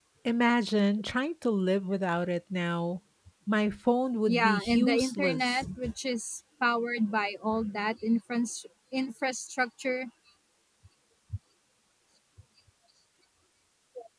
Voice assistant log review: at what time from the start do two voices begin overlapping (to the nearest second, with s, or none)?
4 s